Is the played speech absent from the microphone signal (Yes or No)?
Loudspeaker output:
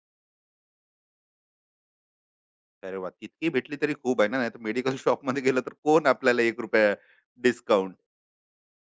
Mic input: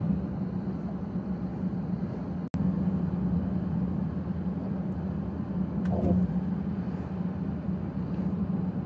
Yes